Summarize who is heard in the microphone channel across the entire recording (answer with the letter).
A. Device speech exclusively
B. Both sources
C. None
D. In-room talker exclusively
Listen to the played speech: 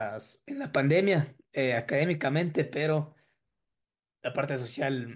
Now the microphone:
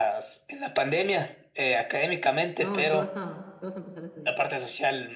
B